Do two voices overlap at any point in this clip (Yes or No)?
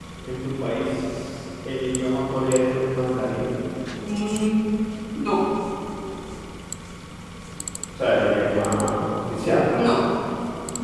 No